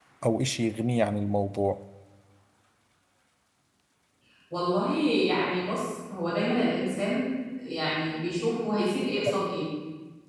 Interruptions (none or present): none